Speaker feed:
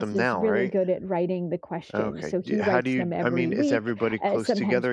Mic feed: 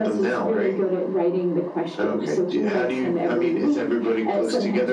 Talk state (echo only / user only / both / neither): echo only